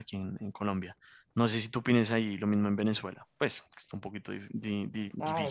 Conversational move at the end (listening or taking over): taking over